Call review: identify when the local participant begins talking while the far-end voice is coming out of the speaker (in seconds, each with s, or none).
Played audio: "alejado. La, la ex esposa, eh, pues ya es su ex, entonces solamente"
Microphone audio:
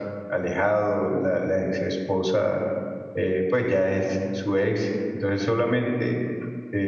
none